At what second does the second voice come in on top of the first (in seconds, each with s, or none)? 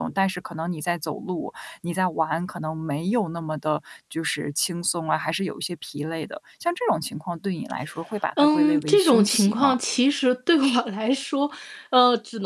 8.4 s